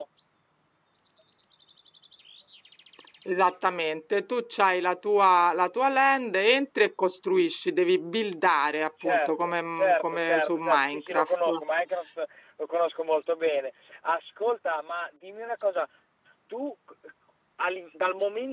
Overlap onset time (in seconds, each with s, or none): 9.0 s